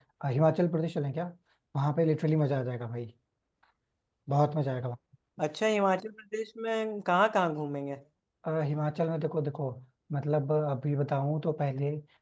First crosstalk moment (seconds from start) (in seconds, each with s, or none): none